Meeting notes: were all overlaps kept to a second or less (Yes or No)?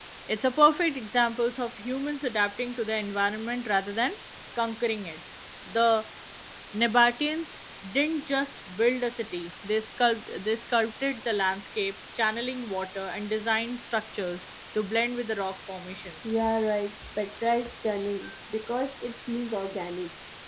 Yes